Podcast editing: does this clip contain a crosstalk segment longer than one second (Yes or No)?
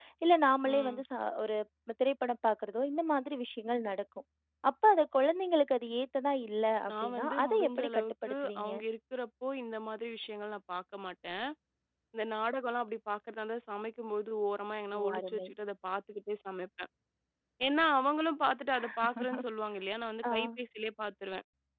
Yes